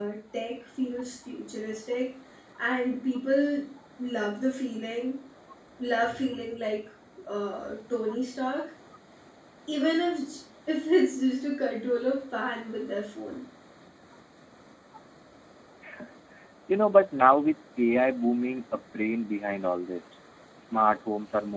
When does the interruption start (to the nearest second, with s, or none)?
none